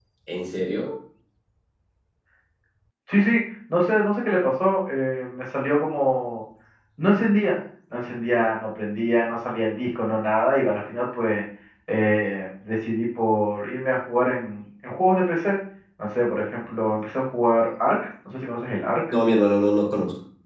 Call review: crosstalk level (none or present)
none